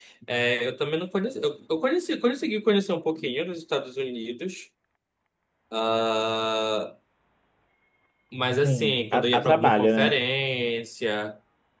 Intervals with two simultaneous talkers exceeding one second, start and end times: 8.6-10.2

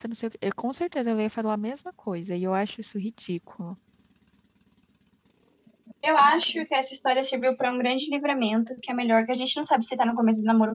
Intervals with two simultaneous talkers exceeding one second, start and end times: none

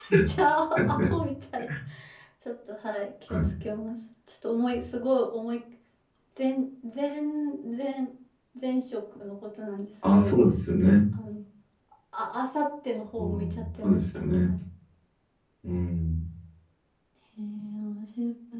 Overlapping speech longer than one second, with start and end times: 13.2-14.5

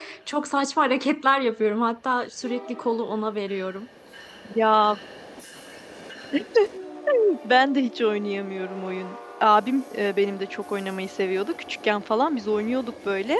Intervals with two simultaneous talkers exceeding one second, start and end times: none

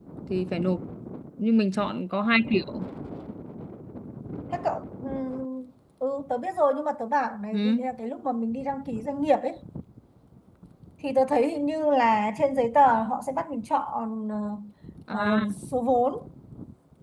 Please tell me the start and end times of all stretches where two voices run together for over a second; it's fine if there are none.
none

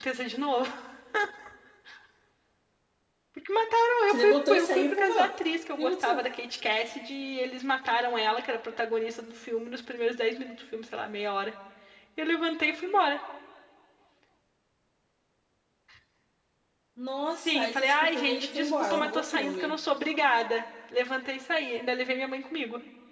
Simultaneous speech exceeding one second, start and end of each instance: 4.1-5.3, 17.3-19.7

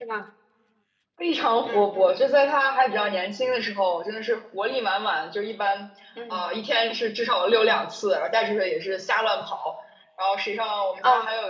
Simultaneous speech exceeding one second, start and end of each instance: none

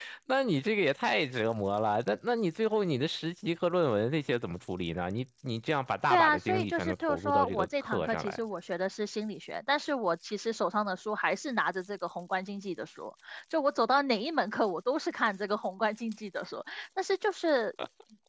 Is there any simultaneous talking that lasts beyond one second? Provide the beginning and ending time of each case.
6.1-8.4

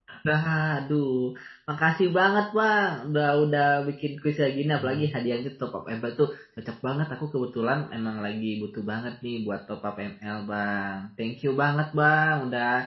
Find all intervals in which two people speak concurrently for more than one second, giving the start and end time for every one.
none

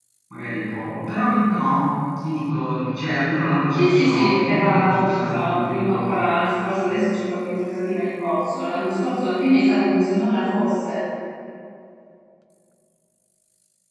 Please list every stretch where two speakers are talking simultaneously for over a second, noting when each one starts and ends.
3.8-6.2

